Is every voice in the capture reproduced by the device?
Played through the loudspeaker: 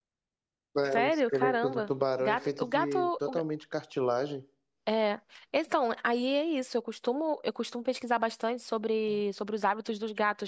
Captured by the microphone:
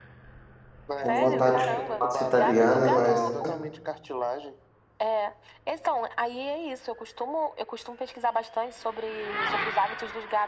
No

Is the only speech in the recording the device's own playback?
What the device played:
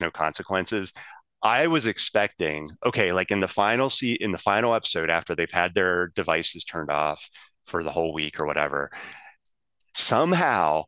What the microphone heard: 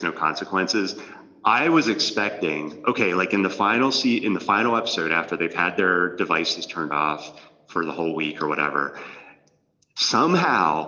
Yes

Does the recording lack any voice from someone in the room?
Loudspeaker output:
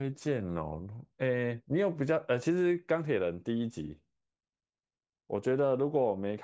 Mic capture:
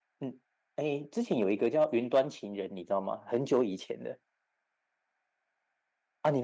No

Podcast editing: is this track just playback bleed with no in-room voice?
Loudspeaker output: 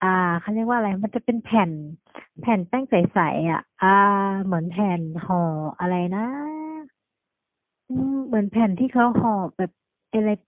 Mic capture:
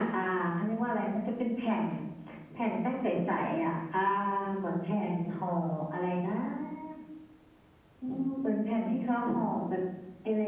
Yes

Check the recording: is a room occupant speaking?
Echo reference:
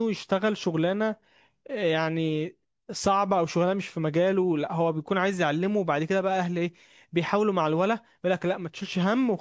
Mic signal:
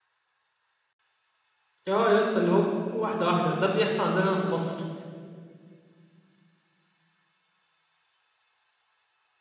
Yes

